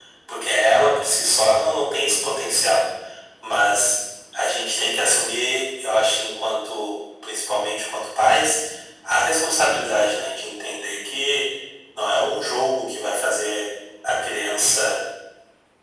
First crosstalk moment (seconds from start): none

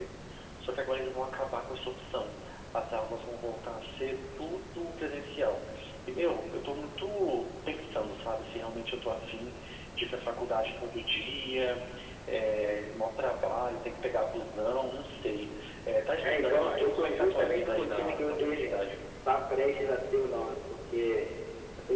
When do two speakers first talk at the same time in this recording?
16.2 s

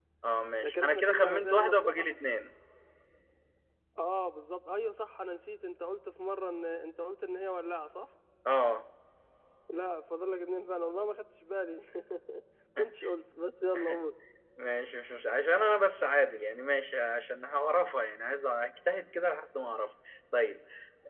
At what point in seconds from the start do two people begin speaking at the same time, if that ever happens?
0.6 s

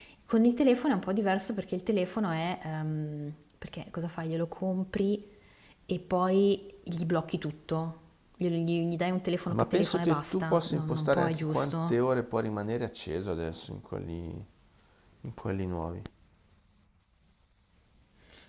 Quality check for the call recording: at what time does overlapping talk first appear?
9.5 s

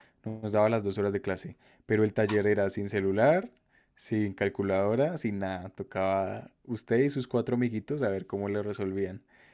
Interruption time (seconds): none

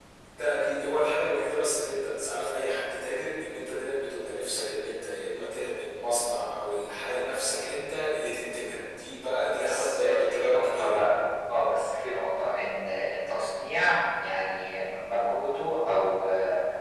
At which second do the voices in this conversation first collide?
9.6 s

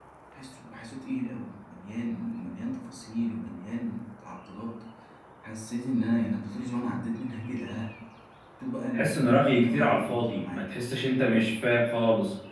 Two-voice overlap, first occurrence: 8.9 s

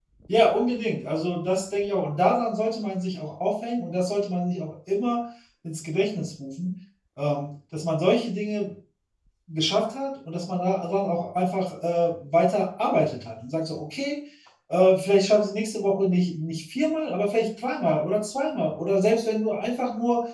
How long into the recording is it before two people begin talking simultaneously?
none

